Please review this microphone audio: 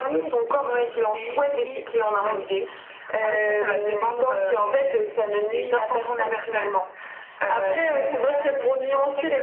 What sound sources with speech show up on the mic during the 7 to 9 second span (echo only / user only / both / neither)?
both